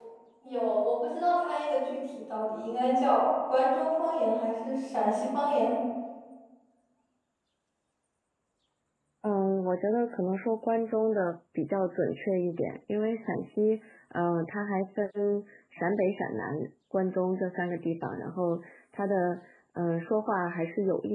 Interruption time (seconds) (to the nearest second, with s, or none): none